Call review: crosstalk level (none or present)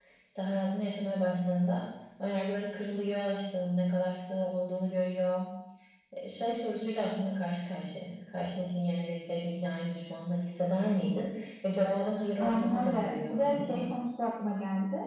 present